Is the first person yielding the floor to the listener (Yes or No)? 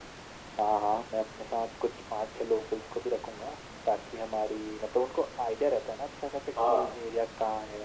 No